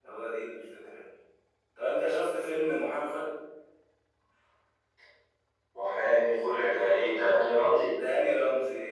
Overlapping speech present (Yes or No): No